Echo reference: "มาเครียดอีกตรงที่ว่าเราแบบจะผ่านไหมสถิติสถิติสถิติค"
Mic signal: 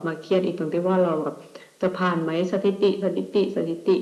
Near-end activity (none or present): none